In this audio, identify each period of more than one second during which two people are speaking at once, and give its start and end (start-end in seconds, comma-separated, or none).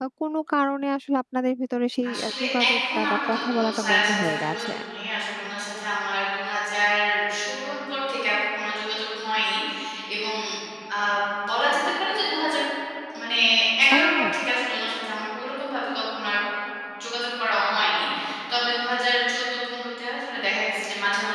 2.1-4.7